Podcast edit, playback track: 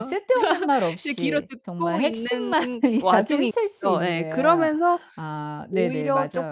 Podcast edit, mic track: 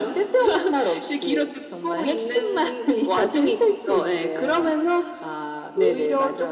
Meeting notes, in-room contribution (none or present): none